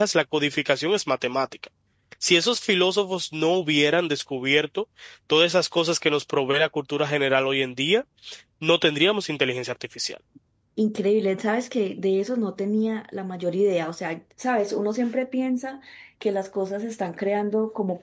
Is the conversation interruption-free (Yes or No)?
Yes